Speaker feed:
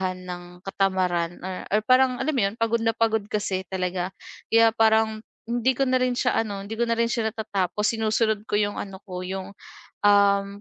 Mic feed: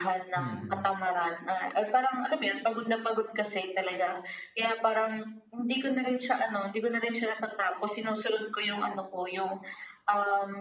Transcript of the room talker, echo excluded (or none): Mm.